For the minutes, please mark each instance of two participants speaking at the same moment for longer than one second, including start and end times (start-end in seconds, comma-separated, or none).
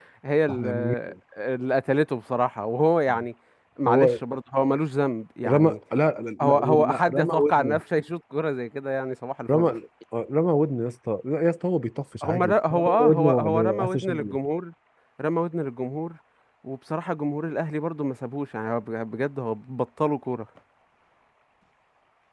6.4-7.8, 12.2-14.1